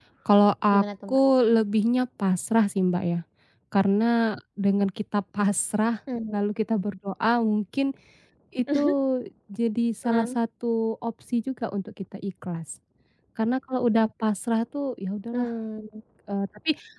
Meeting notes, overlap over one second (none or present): none